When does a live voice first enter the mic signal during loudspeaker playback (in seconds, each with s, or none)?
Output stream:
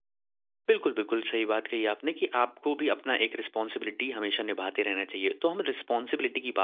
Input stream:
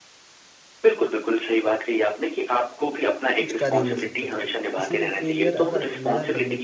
3.4 s